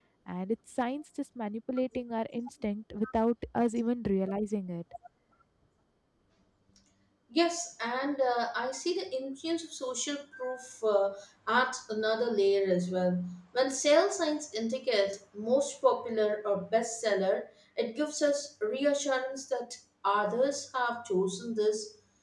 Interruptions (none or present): none